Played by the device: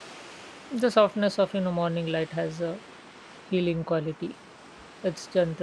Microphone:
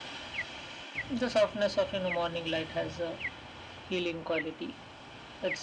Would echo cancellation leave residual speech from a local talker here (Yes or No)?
No